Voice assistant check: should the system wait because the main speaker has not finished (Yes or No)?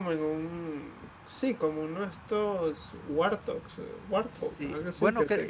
No